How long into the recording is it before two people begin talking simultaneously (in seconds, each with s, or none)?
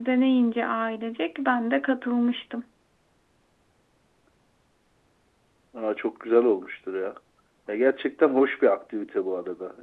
none